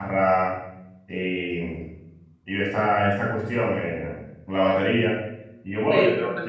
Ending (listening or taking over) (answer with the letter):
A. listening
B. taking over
A